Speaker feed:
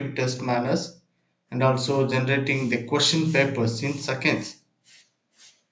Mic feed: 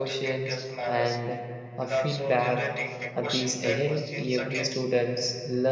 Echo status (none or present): present